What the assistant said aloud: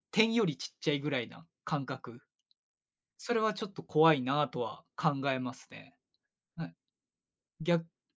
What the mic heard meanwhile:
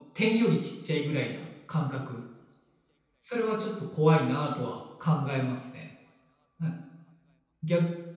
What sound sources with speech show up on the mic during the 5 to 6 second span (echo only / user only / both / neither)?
echo only